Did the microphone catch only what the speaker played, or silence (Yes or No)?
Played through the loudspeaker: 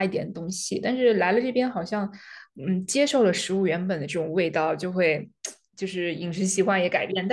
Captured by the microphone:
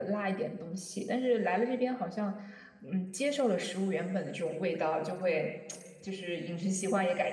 Yes